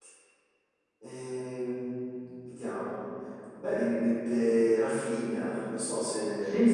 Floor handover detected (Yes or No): Yes